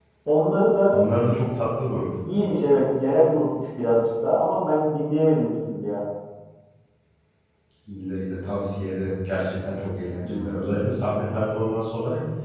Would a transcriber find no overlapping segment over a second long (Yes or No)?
Yes